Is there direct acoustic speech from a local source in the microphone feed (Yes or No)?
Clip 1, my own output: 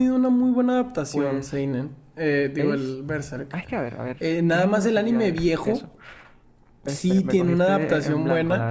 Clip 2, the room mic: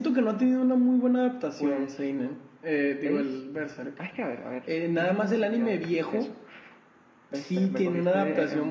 No